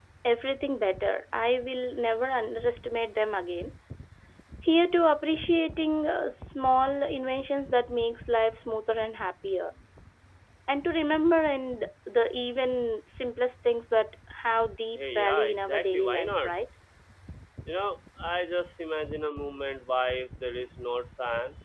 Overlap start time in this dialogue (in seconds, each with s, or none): 14.9 s